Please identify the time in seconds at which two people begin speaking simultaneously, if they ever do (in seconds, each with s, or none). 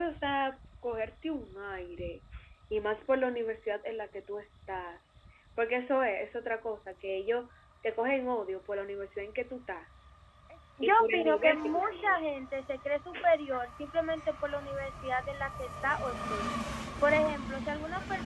10.8 s